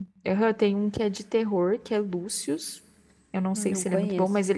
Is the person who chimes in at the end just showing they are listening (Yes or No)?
Yes